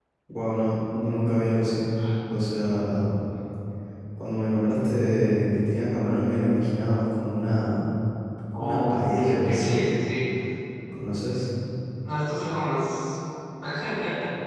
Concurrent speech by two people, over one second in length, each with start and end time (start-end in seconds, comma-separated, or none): 8.6-9.8